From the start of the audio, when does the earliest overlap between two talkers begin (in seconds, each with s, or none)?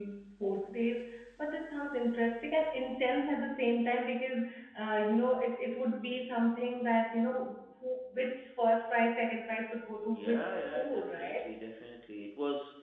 10.1 s